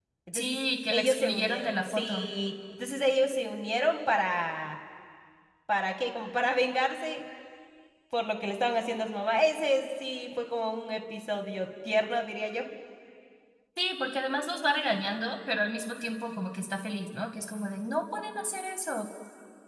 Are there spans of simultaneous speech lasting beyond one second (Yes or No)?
Yes